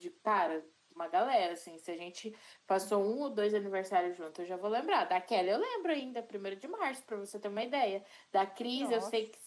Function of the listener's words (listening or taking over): listening